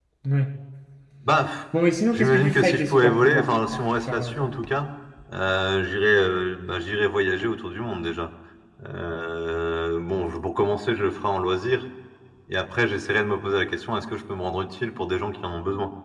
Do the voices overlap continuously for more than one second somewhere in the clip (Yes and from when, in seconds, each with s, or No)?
Yes, from 2.1 s